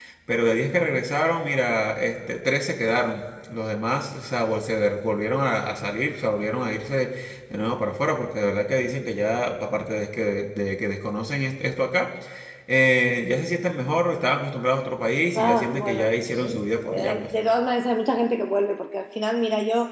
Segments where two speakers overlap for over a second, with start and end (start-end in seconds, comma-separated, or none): 15.3-17.3